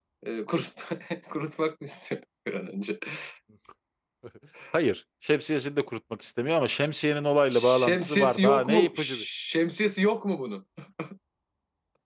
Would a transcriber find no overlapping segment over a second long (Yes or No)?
No